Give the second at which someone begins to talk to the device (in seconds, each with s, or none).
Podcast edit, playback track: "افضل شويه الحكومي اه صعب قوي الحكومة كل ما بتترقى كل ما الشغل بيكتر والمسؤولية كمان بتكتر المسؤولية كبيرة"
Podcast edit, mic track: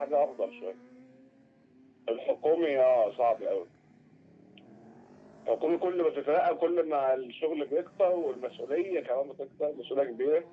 none